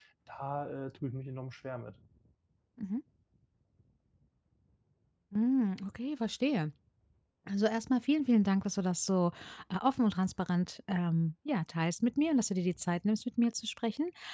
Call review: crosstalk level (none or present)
none